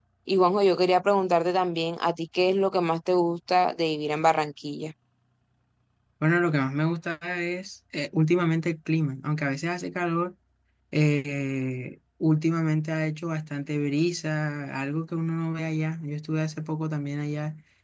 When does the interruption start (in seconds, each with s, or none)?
none